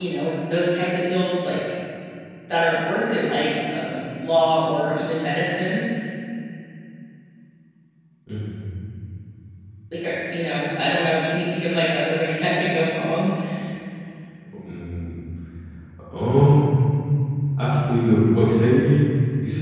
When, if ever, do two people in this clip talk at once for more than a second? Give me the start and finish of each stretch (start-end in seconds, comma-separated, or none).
none